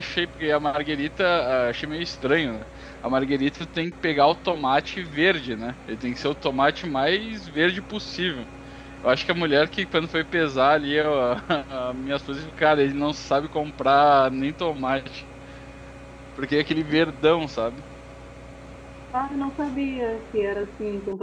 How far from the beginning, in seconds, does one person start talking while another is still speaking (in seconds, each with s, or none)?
none